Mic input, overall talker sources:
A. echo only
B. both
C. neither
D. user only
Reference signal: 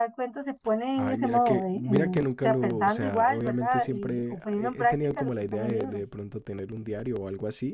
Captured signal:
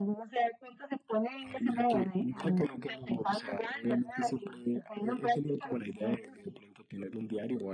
A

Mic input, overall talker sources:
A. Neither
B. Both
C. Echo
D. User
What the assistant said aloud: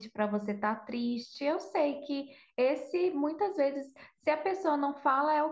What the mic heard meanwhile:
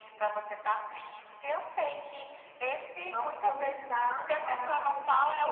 B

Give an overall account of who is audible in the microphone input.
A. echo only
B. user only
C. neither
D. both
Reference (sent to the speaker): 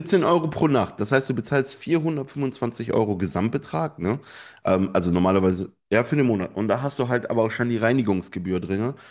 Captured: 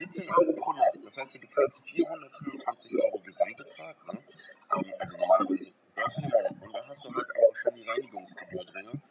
A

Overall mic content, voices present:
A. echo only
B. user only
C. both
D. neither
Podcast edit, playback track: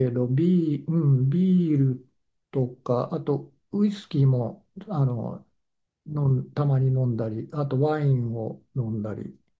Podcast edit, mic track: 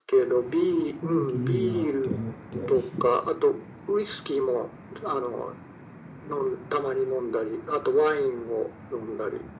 C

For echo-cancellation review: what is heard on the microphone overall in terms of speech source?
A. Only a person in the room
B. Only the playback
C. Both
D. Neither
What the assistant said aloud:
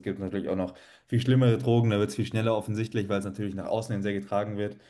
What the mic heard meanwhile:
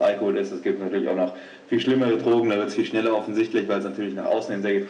B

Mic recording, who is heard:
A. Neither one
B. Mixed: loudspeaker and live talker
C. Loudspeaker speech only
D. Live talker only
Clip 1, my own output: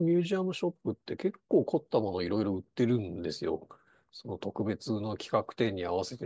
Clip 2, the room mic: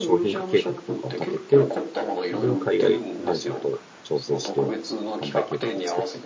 B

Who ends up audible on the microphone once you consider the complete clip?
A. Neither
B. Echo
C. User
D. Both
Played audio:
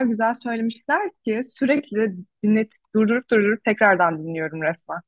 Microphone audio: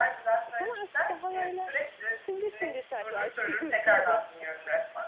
D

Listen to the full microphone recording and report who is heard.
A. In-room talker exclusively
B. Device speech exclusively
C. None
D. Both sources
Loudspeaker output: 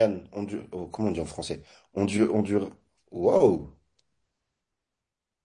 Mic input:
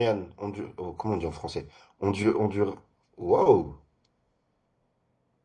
B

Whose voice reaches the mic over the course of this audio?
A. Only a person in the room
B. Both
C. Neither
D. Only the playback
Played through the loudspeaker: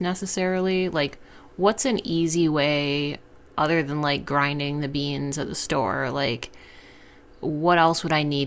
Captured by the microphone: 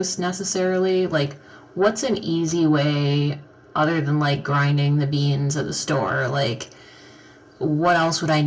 D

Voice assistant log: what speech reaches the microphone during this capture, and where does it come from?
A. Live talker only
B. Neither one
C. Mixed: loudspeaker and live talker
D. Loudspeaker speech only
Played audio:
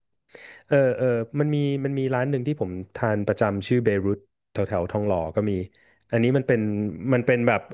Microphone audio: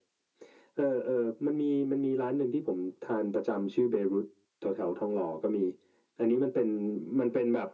D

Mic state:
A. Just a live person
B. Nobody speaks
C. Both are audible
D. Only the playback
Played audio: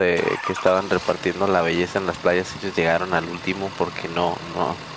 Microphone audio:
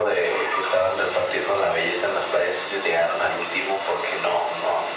D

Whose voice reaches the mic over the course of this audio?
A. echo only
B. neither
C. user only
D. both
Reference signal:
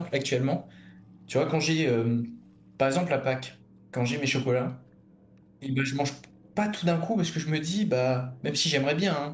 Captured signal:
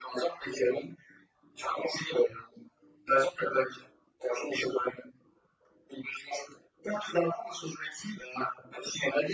A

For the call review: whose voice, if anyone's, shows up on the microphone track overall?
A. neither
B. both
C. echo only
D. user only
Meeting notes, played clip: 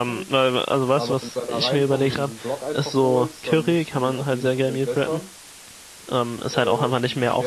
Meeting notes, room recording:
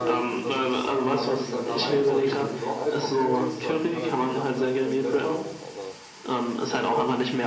B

